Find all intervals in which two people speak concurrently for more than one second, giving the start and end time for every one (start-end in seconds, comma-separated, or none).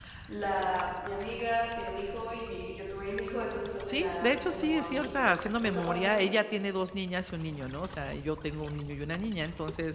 3.9-6.3